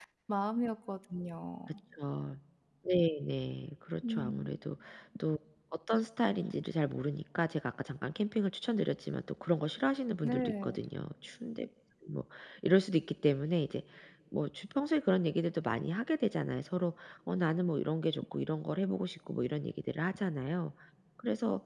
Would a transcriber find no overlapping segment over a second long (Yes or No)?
Yes